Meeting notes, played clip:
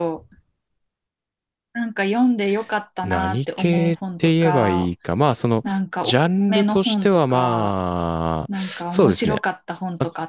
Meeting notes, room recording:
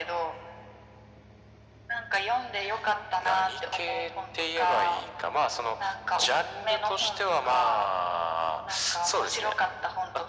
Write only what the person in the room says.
none

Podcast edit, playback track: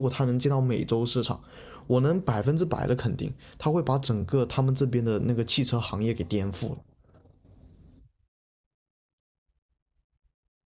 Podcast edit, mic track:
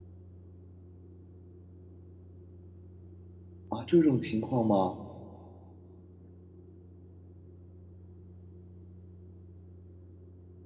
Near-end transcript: 啊，这种情况吗？

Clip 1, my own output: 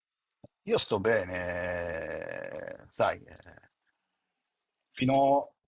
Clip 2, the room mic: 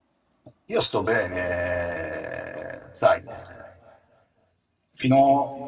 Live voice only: none

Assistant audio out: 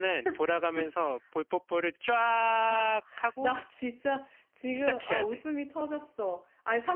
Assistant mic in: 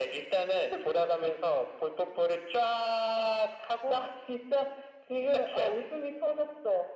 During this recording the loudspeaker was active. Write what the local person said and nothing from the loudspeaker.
none

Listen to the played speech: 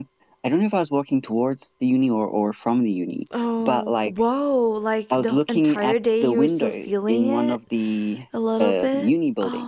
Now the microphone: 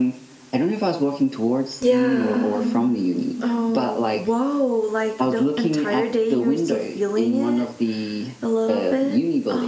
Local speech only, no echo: Yeah.

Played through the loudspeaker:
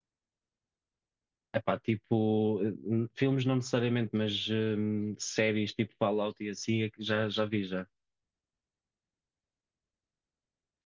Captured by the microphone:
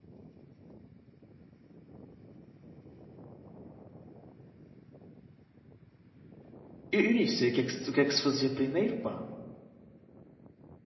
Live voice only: Eu, eu nem sei o que é que se, o que é que se fazia primeiro, pá.

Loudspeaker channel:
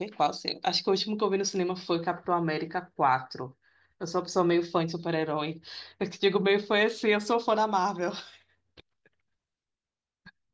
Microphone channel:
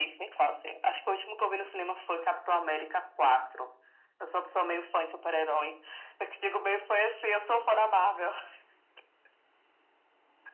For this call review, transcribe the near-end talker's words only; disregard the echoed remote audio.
none

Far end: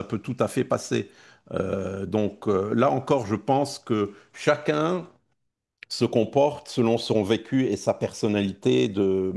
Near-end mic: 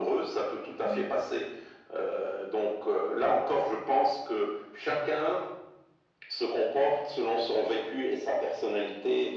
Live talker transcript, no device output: Oui,

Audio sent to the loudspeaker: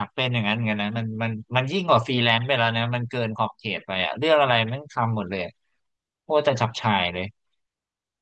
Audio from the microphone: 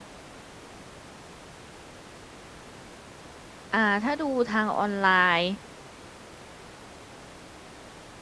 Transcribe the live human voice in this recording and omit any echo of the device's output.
อ่าถ้าดูทางออนไลน์

